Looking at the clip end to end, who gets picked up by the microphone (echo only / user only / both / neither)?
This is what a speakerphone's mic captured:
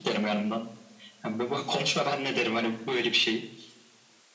both